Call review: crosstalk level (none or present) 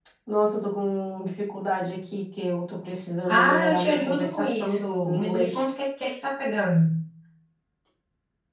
present